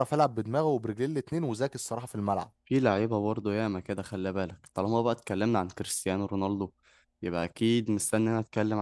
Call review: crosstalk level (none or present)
none